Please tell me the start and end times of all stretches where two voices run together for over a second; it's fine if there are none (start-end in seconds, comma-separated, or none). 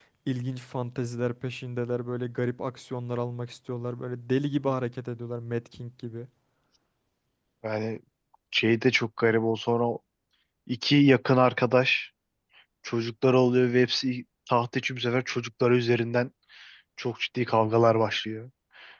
none